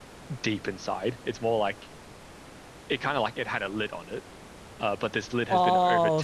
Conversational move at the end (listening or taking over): taking over